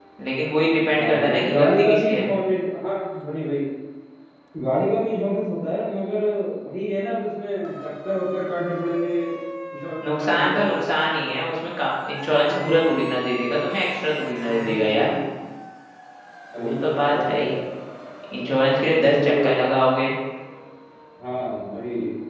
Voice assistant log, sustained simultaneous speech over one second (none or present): present